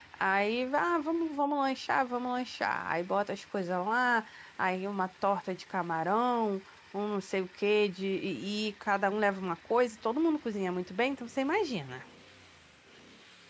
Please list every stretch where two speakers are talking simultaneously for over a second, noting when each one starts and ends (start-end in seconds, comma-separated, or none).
none